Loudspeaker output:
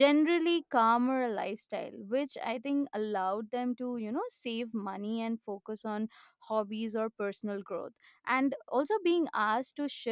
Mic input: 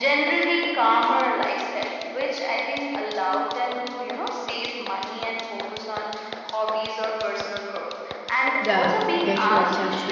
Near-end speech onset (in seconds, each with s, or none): 8.6 s